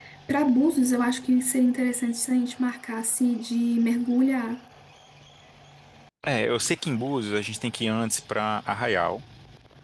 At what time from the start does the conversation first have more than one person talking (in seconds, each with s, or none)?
none